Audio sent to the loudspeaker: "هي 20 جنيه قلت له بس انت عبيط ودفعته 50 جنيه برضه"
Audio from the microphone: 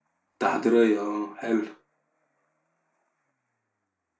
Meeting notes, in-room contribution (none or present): present